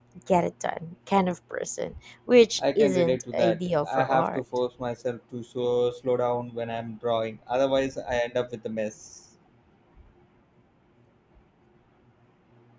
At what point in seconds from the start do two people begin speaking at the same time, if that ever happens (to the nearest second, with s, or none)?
3 s